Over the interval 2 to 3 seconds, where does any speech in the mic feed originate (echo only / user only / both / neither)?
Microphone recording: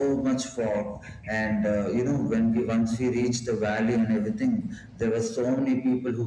echo only